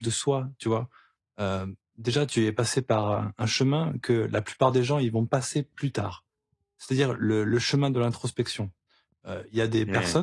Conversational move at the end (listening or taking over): listening